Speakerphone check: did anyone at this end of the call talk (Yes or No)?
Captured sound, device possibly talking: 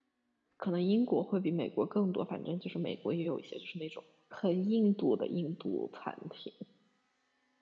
Yes